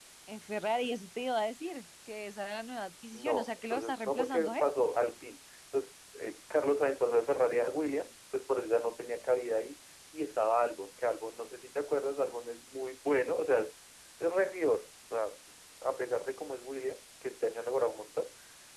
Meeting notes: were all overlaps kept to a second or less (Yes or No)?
No